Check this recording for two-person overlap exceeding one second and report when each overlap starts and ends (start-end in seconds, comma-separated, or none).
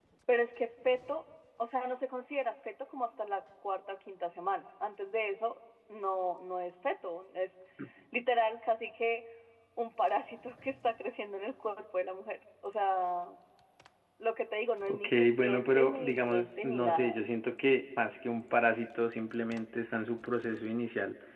14.9-17.2